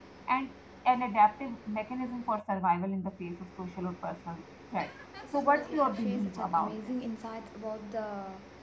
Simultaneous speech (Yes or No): Yes